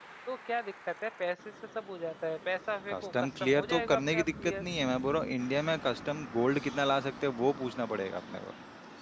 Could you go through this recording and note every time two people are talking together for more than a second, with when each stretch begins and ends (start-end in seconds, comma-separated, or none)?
2.9-4.7